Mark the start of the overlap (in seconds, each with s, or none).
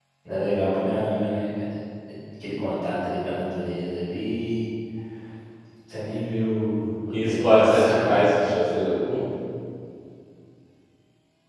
7.1 s